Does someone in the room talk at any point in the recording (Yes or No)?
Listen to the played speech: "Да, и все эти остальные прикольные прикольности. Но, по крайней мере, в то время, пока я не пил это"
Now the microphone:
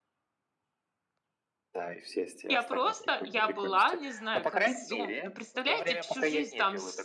Yes